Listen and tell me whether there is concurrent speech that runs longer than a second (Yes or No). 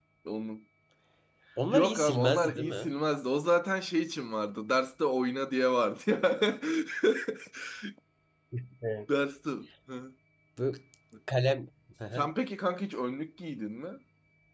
Yes